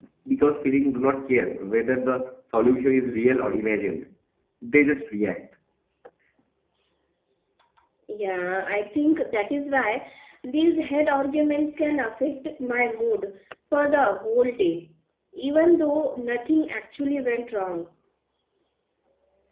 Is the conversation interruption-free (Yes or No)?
Yes